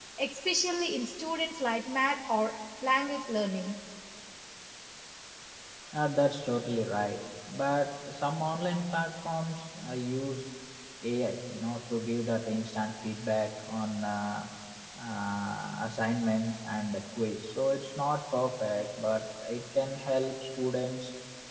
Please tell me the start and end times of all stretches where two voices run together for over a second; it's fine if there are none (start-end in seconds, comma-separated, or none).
none